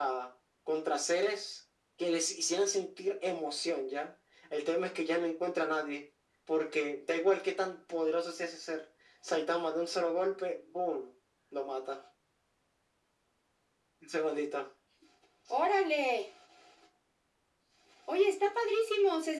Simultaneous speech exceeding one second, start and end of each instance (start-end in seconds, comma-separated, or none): none